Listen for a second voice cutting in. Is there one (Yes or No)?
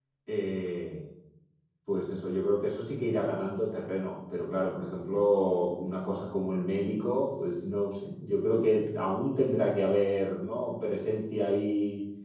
No